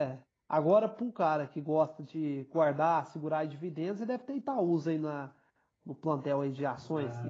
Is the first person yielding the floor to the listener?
Yes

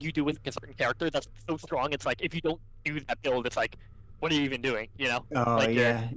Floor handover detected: Yes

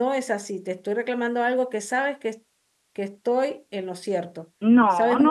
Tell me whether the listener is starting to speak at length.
Yes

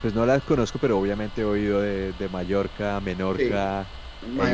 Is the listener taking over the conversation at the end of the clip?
Yes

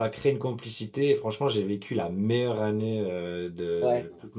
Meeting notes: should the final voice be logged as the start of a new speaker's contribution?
No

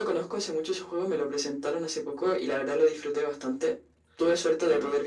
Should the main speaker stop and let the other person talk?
No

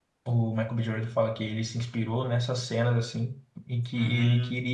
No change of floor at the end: Yes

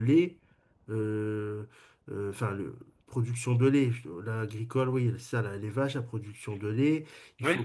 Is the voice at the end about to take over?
No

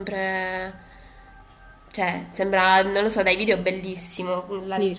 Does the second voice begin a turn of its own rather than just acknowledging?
Yes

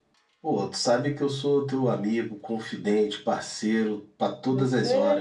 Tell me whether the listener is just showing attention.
No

